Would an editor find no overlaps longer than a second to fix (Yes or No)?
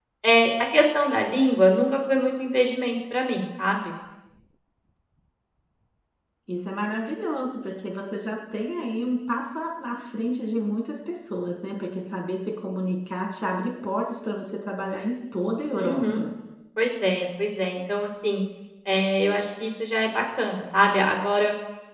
Yes